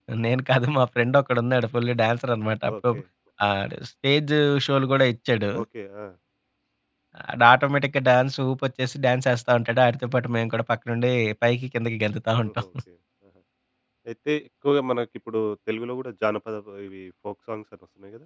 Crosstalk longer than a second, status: none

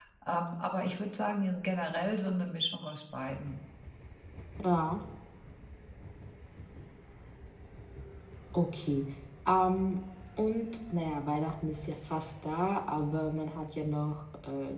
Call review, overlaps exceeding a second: none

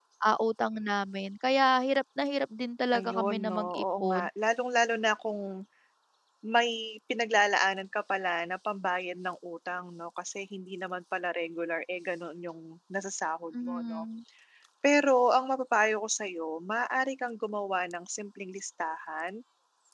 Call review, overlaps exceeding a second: present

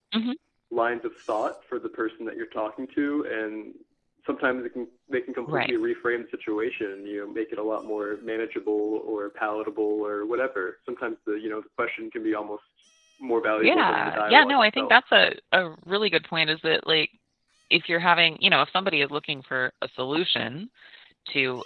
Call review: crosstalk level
present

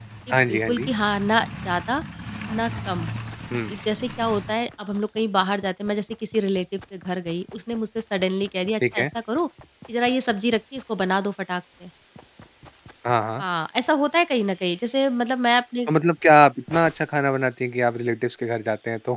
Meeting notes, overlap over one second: none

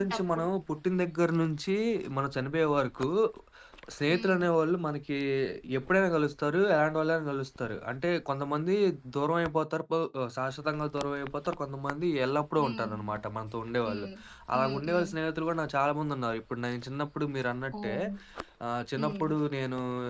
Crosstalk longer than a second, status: none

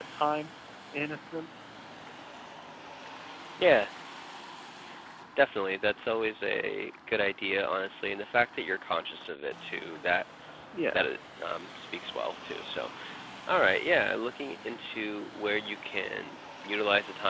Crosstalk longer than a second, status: none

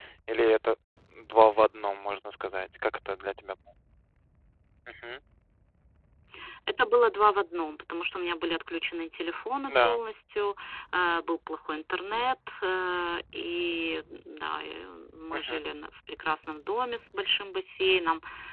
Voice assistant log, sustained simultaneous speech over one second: none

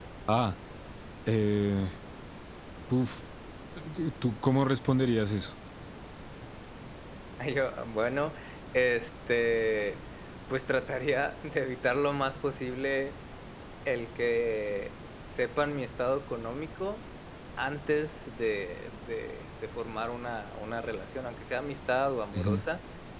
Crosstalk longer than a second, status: none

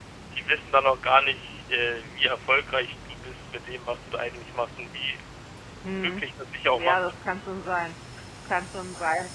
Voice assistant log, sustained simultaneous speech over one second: none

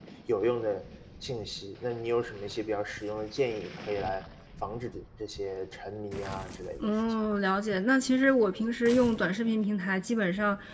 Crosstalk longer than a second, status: none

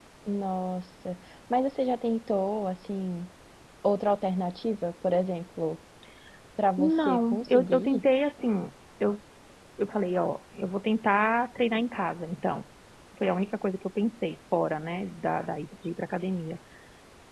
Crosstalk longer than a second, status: present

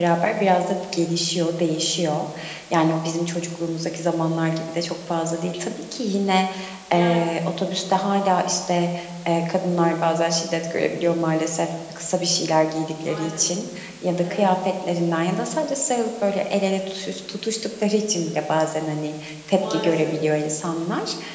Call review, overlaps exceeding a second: none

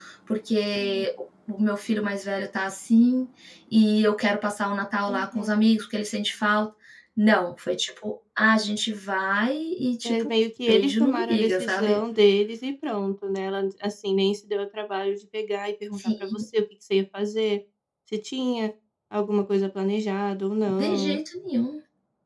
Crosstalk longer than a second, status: present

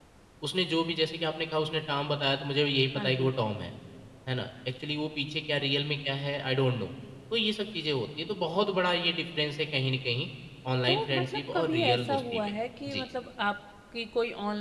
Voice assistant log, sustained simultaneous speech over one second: present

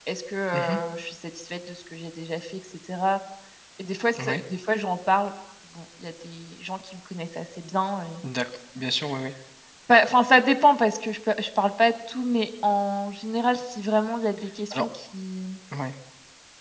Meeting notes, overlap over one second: none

